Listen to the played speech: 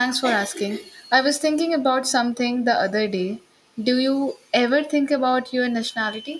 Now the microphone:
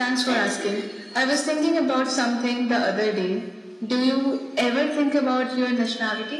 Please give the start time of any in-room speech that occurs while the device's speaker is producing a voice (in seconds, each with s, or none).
none